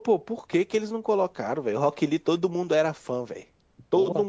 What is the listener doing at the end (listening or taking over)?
taking over